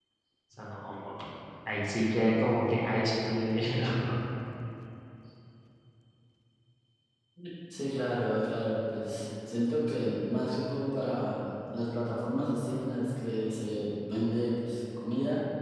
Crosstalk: none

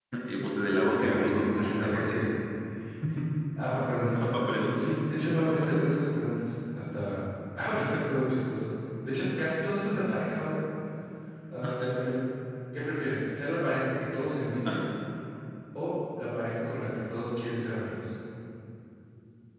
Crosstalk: present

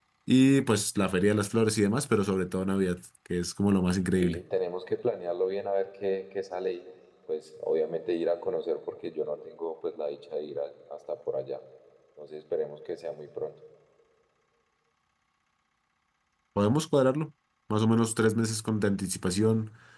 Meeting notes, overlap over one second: none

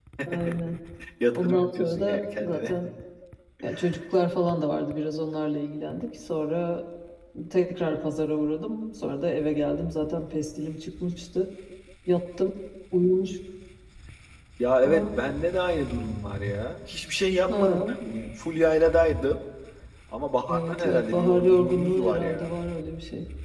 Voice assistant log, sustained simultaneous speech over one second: present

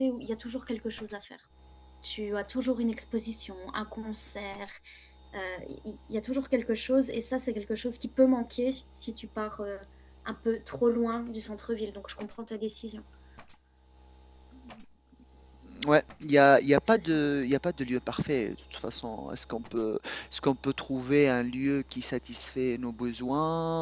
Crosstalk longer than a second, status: none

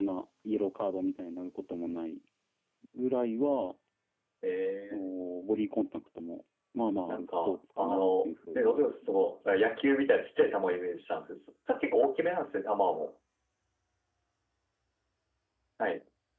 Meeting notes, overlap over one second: present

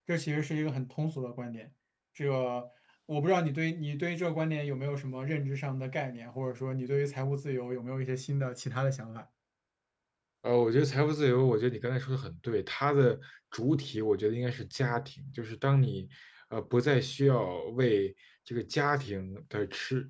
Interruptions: none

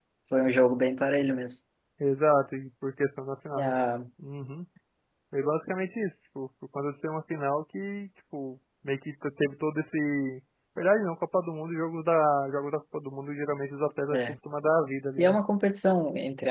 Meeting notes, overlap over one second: none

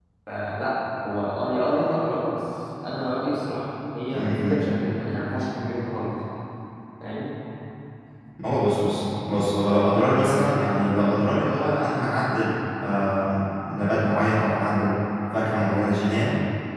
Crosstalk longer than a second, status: none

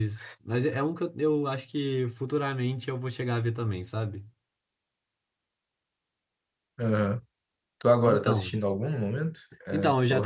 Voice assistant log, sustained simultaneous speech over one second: none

